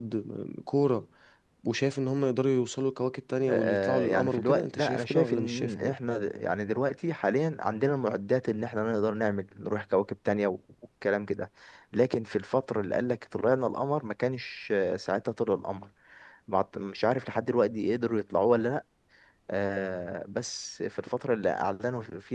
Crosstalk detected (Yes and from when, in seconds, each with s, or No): Yes, from 3.5 s